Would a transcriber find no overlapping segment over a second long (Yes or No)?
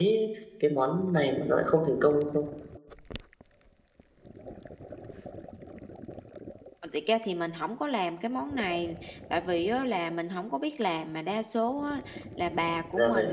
Yes